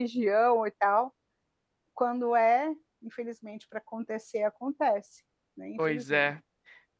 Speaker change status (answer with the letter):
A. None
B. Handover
B